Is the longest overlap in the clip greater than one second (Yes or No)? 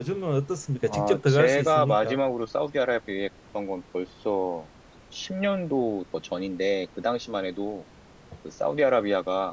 Yes